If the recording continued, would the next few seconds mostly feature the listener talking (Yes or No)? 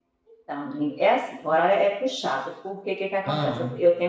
No